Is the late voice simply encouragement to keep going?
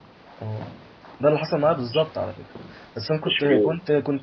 Yes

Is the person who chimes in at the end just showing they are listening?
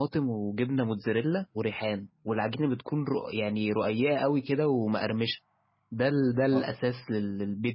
Yes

